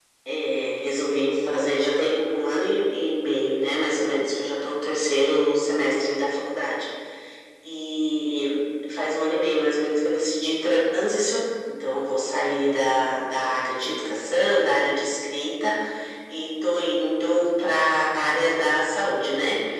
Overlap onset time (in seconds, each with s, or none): none